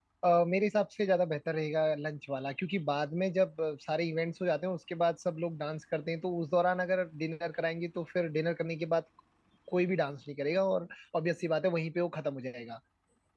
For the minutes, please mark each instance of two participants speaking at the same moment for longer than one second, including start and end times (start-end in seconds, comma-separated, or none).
none